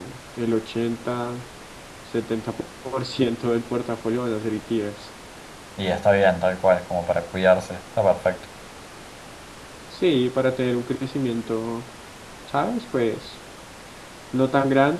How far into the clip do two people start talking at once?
none

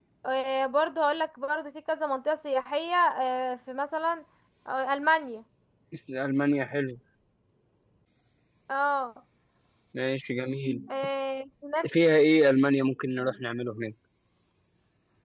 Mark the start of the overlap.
none

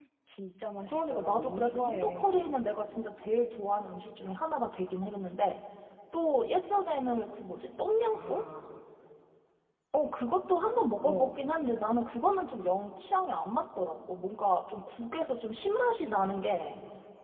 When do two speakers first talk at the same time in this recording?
0.9 s

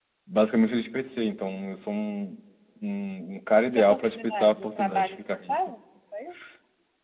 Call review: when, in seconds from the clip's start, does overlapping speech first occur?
3.8 s

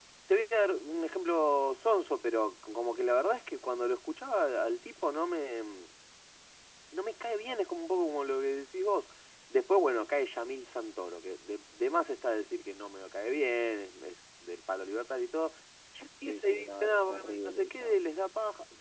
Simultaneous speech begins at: 16.3 s

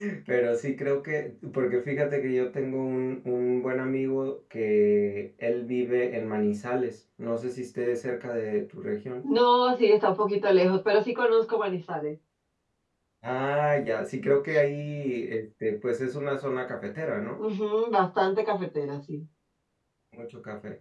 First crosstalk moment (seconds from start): none

